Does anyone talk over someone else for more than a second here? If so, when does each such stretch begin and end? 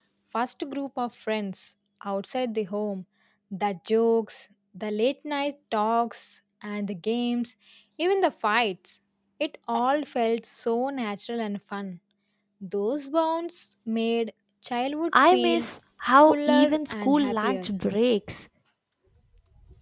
16.3-17.7

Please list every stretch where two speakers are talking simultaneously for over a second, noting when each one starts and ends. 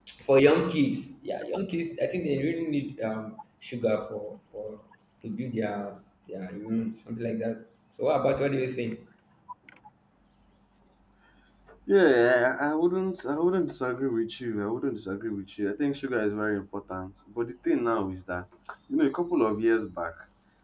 none

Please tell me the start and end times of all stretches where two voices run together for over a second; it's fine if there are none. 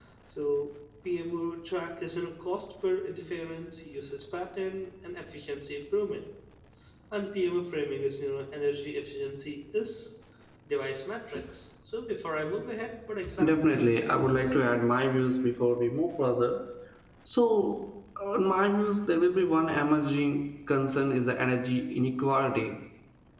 13.4-15.0

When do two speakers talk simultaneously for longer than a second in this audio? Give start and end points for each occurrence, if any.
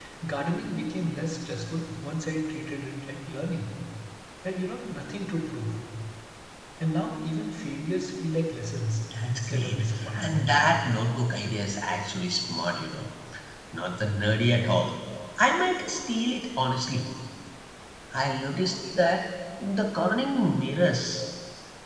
9.3-10.6

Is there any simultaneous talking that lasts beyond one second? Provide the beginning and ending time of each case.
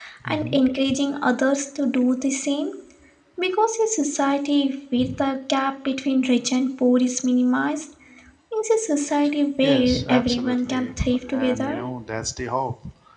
9.6-10.9

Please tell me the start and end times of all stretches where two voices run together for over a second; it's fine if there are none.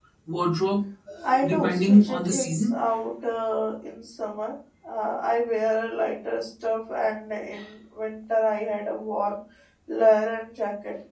1.4-2.8

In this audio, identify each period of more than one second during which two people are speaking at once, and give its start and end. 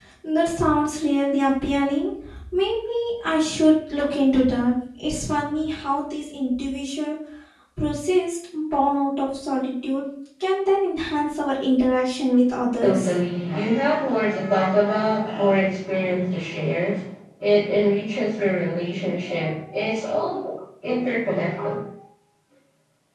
none

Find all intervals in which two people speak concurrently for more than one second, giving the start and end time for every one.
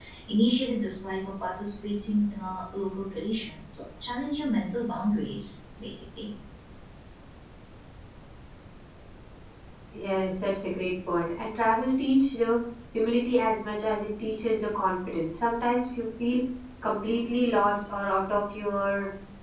none

